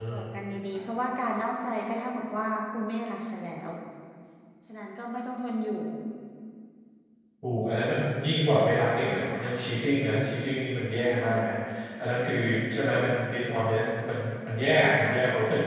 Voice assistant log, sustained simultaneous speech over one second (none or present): none